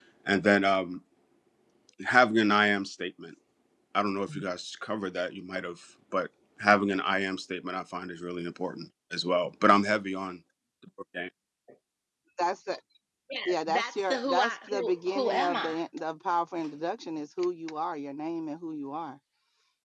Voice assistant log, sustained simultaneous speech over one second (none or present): present